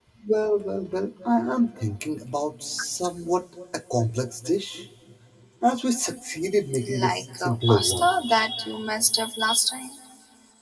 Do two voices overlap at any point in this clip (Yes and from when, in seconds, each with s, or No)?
Yes, from 6.8 s